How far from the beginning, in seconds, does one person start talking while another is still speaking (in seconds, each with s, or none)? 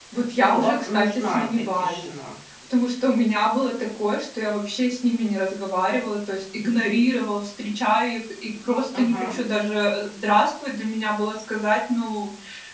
0.5 s